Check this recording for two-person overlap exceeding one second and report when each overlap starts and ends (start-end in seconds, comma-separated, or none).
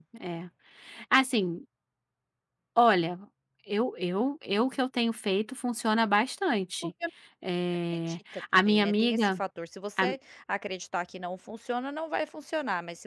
8.0-9.4